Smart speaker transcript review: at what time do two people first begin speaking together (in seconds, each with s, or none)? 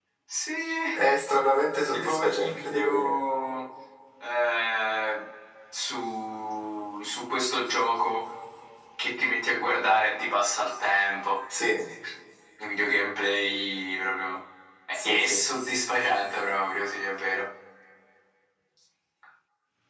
1.9 s